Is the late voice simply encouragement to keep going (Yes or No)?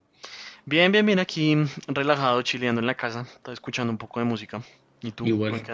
No